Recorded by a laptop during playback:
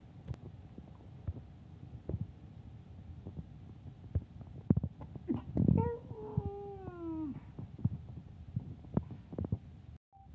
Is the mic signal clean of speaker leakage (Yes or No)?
Yes